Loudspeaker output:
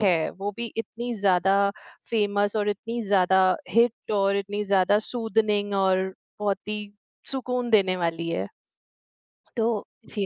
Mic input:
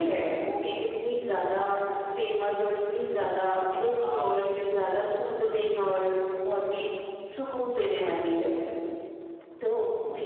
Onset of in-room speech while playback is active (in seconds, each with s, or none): 4.0 s